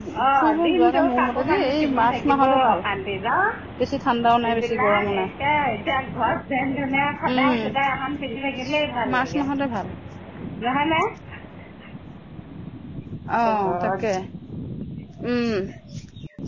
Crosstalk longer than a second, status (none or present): present